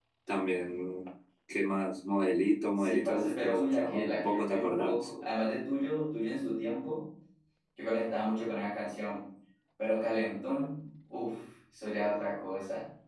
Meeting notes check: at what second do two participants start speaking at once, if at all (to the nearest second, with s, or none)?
3 s